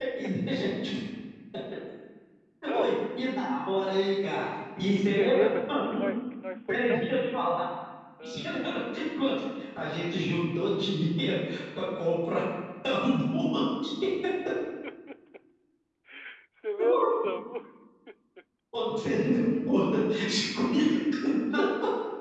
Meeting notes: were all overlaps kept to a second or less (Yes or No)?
No